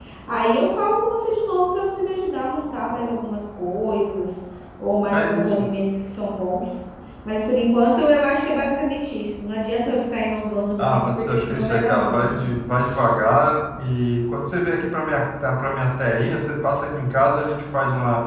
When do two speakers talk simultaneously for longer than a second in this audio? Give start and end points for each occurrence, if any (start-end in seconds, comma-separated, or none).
10.8-12.3